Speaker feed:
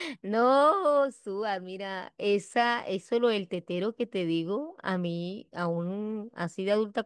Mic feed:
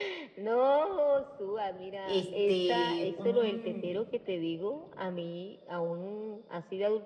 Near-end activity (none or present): present